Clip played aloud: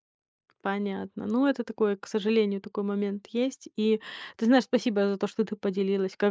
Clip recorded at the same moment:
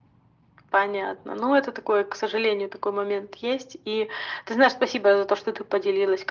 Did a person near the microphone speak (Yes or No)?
No